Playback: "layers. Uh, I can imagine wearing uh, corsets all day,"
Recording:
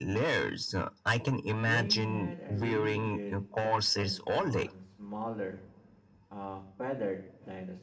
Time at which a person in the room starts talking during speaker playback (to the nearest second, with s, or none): 2 s